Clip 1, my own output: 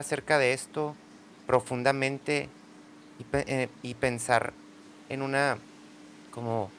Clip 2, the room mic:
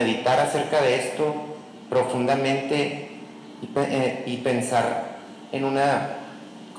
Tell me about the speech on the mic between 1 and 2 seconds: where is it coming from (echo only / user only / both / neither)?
echo only